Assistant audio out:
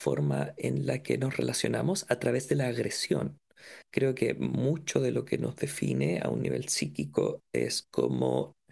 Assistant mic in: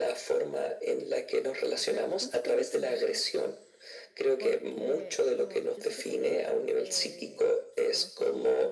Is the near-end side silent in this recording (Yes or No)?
No